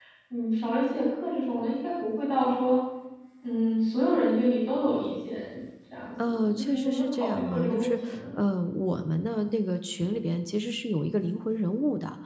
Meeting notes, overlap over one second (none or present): present